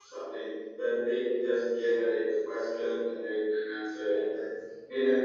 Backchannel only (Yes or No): Yes